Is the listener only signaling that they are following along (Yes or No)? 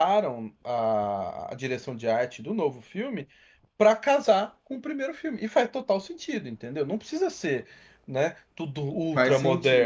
No